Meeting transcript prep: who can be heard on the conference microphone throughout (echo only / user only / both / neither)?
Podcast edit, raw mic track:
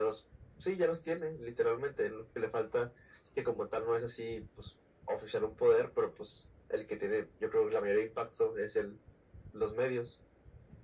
echo only